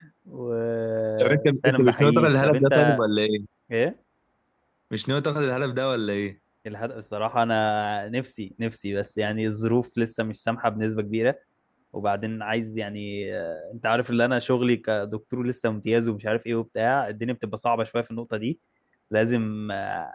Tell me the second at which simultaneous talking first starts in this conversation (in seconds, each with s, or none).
1.2 s